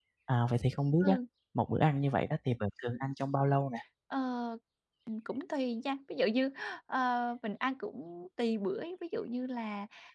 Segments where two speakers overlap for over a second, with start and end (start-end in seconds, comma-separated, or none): none